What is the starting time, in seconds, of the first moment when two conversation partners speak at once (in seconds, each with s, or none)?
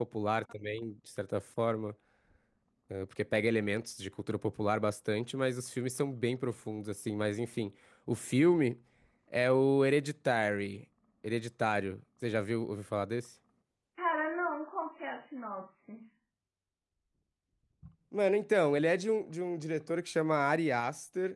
none